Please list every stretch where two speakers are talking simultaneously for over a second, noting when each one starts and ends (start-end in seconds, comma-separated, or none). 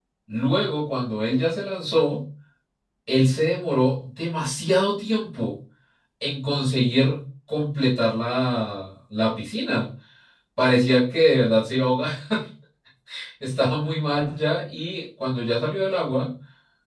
none